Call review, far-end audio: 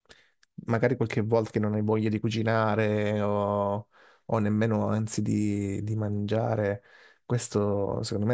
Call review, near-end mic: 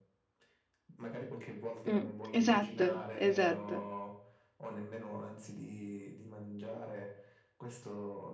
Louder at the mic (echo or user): user